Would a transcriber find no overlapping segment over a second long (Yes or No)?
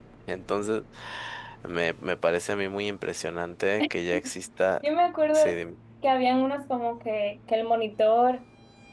Yes